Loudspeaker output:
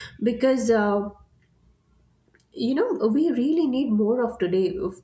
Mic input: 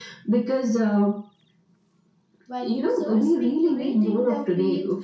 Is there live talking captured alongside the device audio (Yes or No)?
Yes